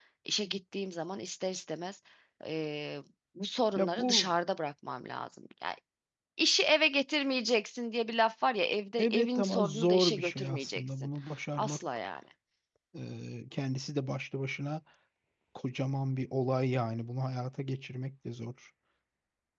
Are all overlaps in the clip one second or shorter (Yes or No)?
No